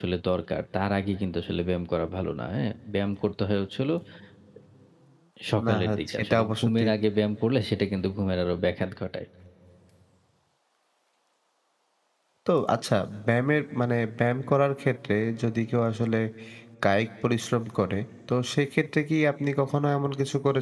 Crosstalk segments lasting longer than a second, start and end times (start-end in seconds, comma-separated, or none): 5.7-6.9